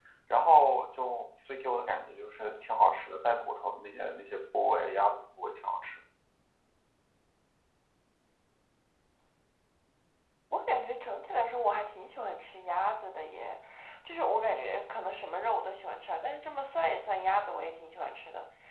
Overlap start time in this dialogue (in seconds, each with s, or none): none